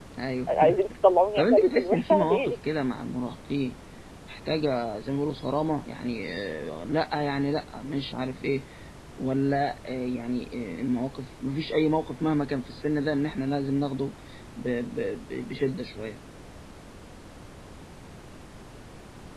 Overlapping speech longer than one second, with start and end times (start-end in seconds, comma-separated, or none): 1.4-2.6